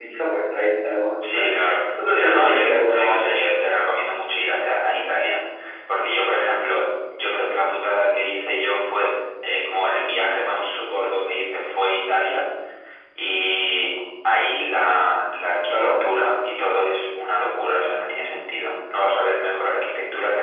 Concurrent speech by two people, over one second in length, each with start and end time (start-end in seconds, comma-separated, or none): 2.1-3.4